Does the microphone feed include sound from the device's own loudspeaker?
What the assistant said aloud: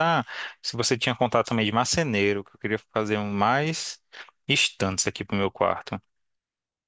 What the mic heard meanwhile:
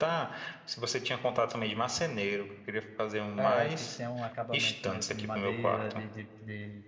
Yes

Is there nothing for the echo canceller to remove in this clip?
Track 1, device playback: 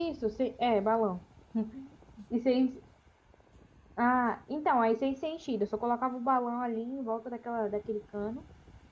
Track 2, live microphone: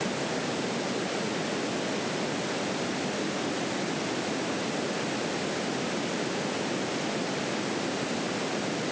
Yes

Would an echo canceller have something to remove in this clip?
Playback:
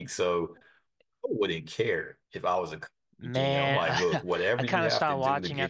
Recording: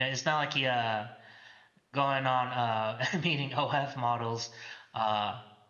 No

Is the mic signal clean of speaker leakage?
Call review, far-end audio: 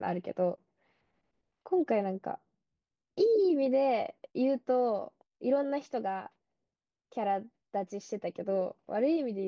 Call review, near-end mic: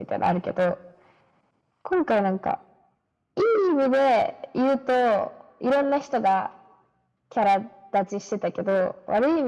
No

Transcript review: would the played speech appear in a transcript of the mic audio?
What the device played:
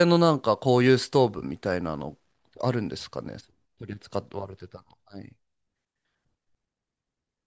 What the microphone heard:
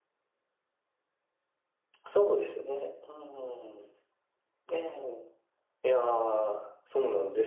No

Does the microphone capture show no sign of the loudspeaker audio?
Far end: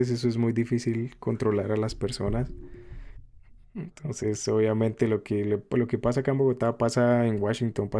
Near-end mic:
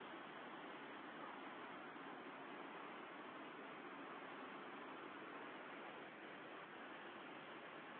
Yes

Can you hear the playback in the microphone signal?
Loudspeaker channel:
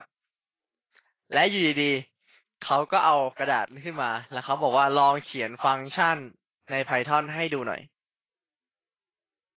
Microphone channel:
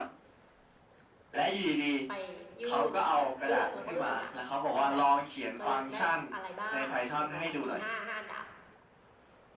Yes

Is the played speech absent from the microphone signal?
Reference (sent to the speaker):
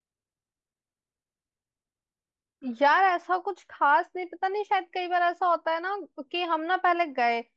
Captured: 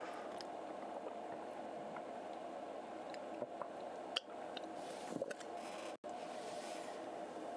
Yes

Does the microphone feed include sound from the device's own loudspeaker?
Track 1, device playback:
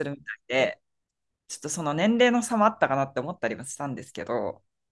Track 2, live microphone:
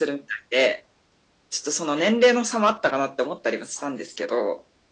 Yes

